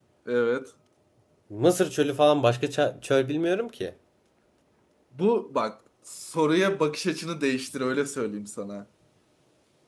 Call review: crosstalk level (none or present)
none